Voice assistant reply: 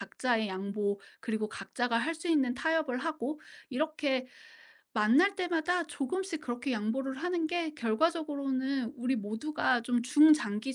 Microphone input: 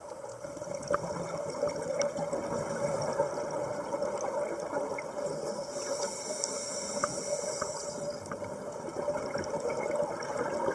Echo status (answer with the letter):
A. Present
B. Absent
B